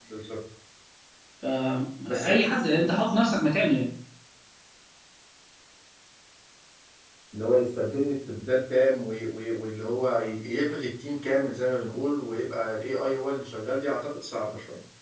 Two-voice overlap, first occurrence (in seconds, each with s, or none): 2.0 s